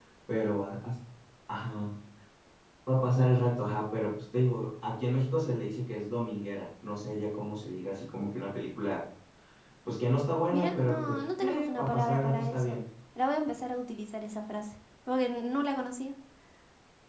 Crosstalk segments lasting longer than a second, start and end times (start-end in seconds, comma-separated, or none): 10.5-12.8